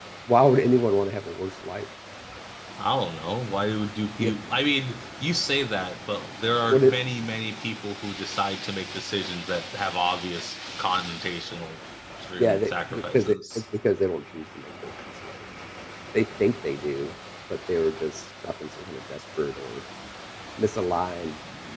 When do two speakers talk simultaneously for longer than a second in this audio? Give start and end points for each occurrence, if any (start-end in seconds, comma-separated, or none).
12.4-13.6